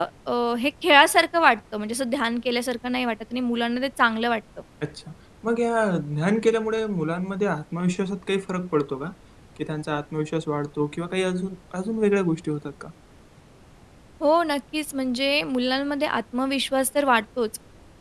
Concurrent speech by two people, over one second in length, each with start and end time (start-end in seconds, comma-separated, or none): none